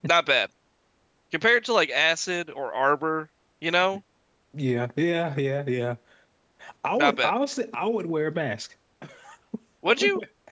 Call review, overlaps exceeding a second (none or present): none